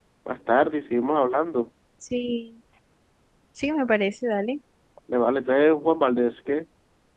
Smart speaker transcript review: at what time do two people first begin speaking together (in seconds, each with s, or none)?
none